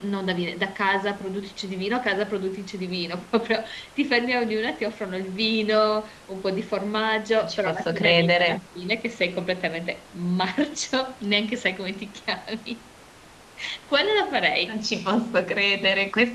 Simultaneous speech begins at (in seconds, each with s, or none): 7.4 s